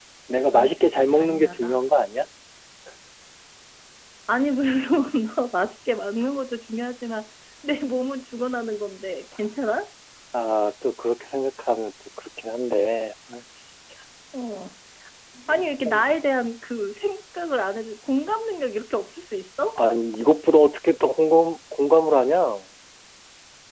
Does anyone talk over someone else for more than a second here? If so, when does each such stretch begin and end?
0.5-1.8

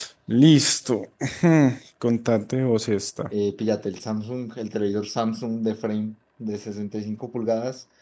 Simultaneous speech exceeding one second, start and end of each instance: none

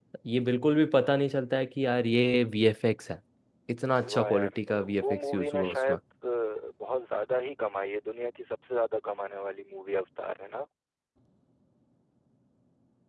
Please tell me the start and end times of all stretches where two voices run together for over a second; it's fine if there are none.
4.1-6.0

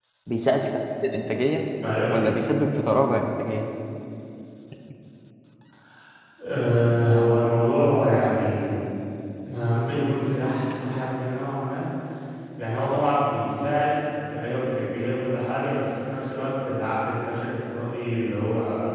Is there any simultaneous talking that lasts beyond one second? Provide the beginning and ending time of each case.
none

